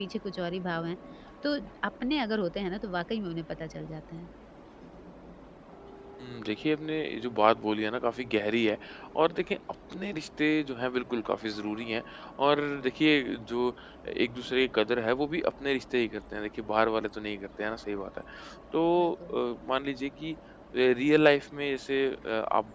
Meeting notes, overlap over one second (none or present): none